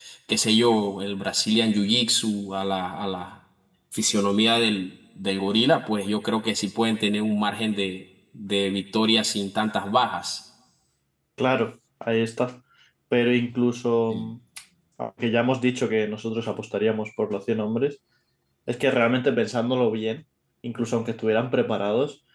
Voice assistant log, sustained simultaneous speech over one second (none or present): none